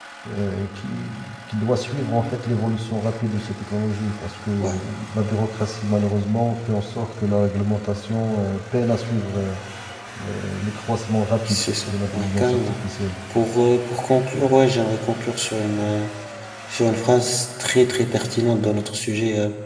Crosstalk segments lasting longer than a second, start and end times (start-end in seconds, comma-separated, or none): 11.5-12.8